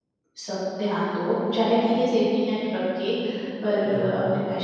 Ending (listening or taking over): listening